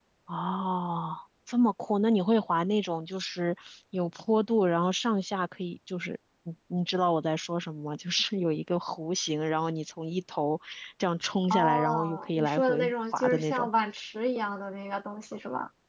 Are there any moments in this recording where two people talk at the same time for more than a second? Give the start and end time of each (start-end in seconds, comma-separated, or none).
11.5-13.7